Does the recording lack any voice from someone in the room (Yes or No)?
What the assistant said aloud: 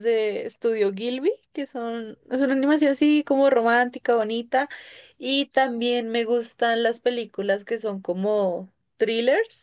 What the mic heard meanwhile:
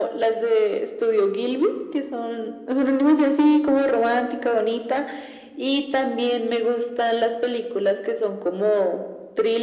Yes